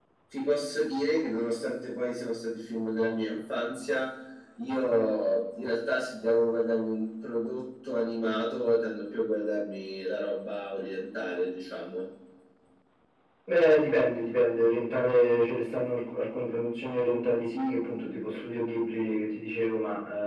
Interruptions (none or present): none